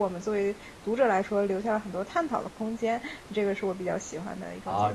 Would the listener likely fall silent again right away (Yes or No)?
No